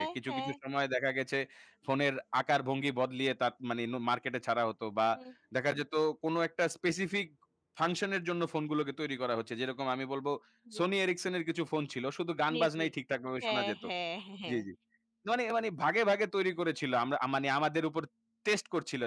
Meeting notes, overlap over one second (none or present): none